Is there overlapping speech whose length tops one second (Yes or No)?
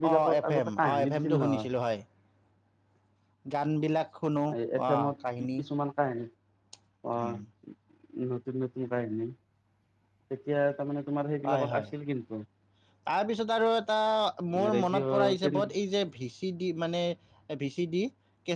Yes